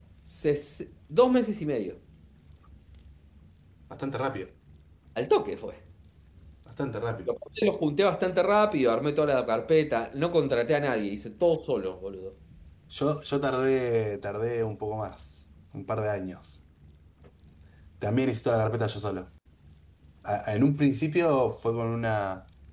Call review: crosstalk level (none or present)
none